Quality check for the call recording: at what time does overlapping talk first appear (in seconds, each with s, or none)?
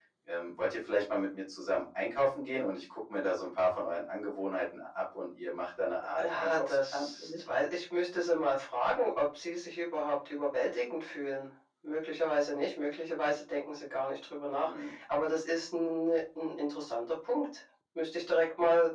6.2 s